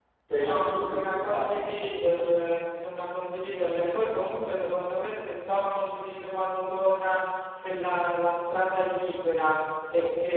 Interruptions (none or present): present